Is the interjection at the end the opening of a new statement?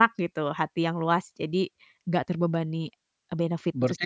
Yes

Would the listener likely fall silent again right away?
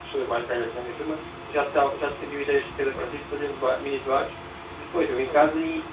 Yes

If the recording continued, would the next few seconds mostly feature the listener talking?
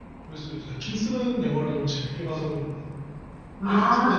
Yes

